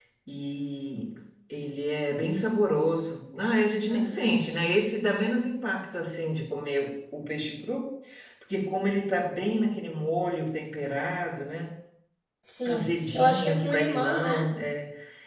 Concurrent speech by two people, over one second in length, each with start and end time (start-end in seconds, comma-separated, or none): 12.6-14.5